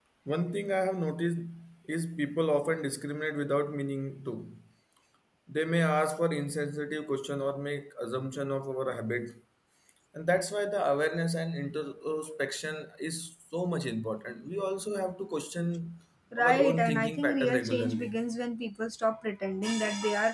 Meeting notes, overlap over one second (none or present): present